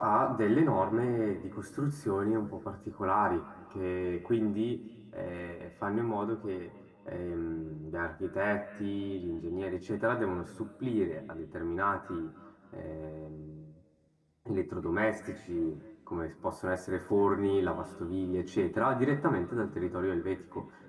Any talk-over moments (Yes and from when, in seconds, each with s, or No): No